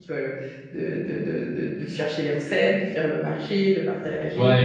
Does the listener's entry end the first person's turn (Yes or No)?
Yes